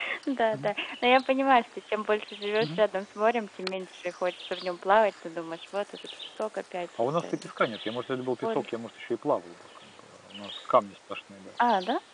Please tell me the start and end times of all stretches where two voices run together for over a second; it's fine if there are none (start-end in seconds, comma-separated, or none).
none